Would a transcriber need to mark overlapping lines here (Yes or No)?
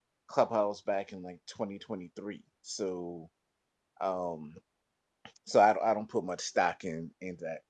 No